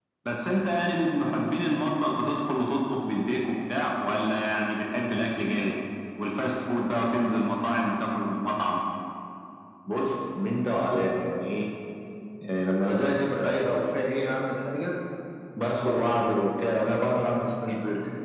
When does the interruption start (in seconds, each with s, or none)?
none